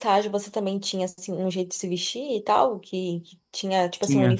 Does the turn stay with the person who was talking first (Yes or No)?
Yes